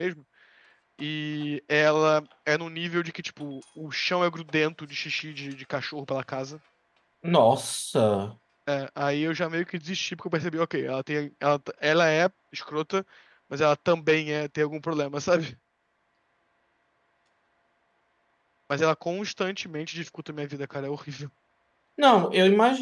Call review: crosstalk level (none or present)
none